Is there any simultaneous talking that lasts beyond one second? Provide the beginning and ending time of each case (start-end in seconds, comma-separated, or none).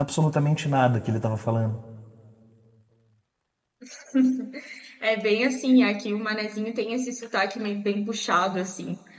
none